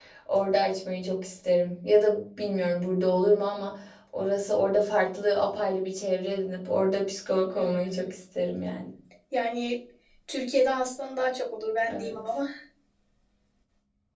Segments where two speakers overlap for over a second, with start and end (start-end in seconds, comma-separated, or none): none